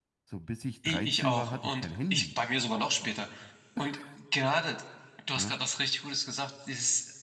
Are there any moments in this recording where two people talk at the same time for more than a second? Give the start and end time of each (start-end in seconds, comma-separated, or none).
0.8-2.3